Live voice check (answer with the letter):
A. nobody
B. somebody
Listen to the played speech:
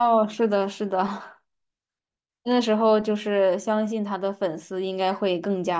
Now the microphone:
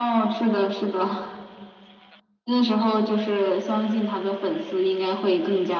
A